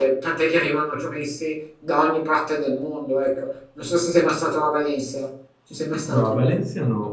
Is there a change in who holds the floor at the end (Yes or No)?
Yes